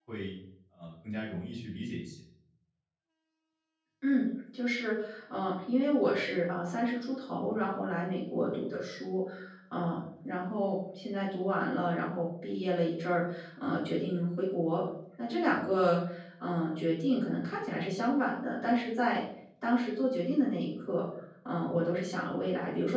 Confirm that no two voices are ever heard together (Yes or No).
Yes